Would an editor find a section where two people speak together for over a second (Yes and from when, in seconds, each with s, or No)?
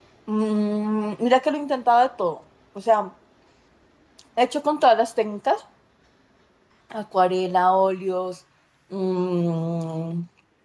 No